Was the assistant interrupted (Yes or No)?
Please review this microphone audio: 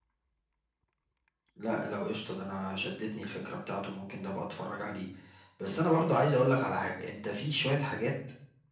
No